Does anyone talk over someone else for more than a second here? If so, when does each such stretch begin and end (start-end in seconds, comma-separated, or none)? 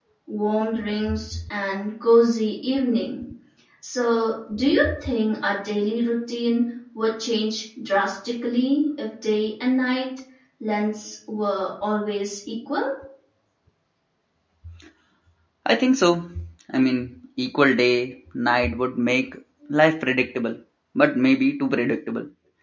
none